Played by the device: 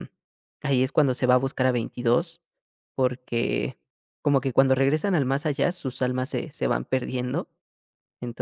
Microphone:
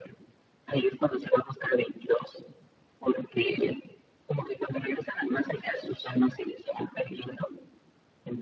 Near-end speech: none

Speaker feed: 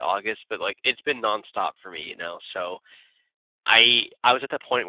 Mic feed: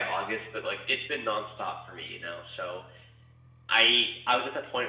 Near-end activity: none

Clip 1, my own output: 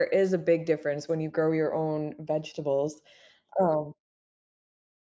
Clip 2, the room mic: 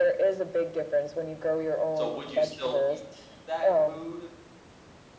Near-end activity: present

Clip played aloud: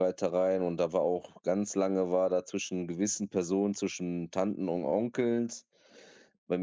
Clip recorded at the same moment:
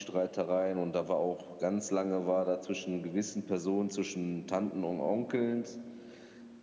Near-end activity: none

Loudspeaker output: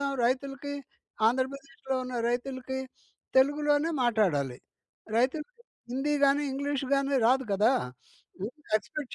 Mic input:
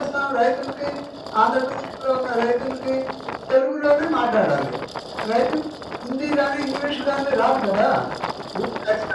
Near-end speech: none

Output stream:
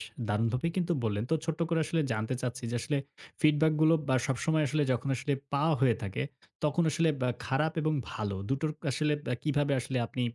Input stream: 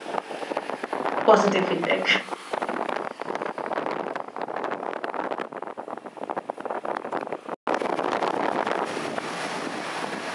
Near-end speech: present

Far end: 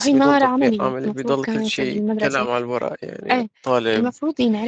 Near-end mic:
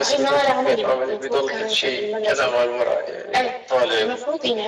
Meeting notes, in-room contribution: none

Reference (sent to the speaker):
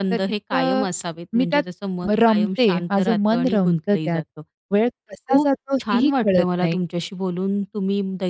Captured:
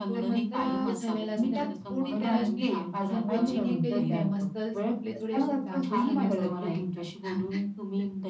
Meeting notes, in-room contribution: present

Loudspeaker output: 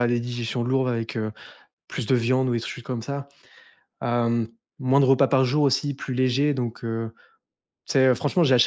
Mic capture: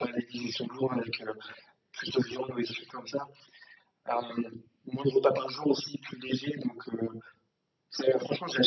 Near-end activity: none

